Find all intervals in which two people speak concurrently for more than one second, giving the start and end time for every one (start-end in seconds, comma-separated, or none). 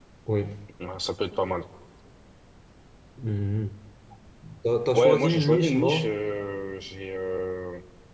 4.9-6.2